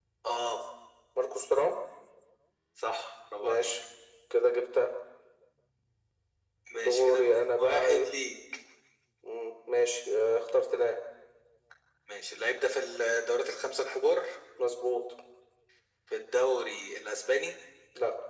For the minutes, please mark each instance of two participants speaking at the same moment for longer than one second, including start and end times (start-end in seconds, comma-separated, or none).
6.7-8.1